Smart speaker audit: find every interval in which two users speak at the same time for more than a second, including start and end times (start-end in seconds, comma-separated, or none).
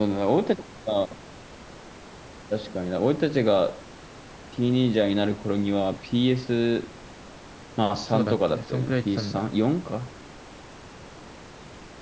8.1-9.5